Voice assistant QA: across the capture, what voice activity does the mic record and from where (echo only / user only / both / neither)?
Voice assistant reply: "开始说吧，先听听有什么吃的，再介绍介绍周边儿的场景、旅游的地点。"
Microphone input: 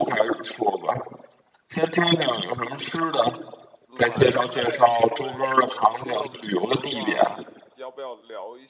both